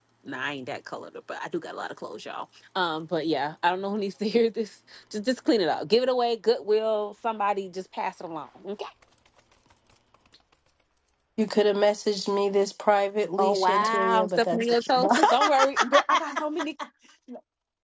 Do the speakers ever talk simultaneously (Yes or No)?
Yes